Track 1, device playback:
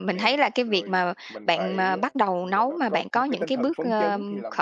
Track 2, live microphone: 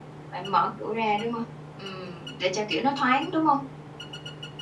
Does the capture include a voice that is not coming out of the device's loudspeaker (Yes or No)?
Yes